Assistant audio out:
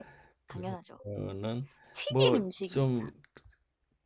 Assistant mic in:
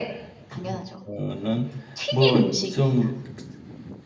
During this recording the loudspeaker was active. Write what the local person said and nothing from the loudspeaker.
none

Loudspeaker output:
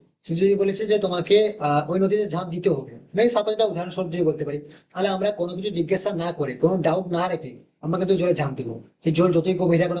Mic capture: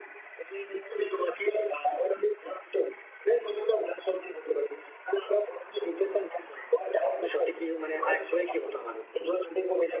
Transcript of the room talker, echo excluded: যে সত্যি কি মানে আরেক ধরে কি হতো আমাদের

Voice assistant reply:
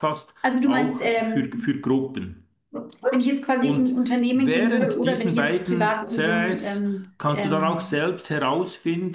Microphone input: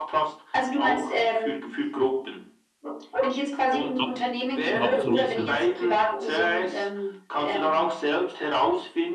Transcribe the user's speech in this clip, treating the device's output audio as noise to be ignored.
Ab- Absolut, ja.

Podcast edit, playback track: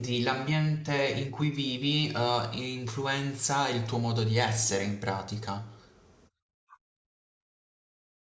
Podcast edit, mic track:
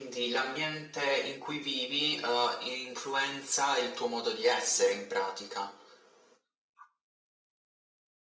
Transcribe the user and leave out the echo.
none

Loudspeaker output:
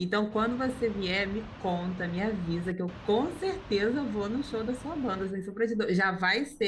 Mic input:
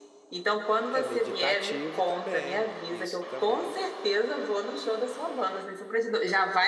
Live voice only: é meditativo também, isso também.

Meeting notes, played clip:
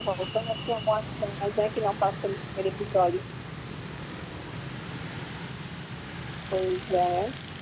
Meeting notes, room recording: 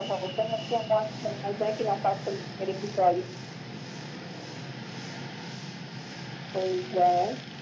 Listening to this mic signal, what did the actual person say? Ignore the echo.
none

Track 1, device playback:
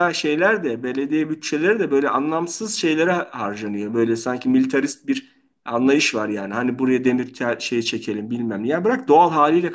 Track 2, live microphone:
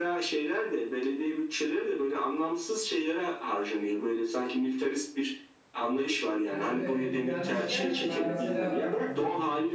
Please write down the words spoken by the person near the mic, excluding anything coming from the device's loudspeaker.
Evet evet yeni gelmişken ben mesela e,

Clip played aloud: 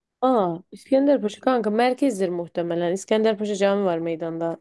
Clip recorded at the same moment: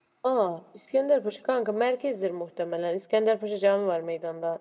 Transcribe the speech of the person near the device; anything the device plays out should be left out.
none

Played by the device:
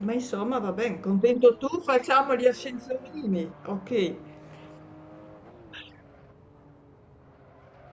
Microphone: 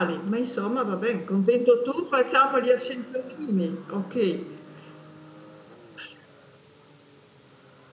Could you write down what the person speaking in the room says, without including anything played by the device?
none

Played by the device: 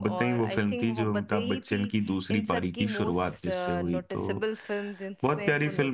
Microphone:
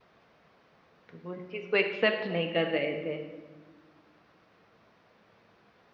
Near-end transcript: तो वो इस चीज को एक्सेप्ट नहीं कर रहे थे

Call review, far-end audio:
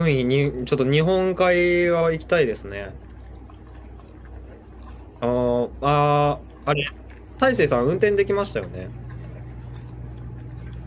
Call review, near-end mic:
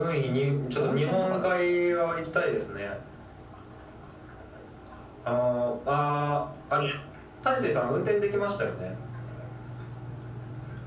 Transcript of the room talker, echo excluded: 温泉とかどうですか岐阜。

